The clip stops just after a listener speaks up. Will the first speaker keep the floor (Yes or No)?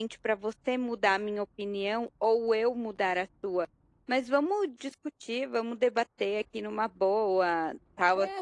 No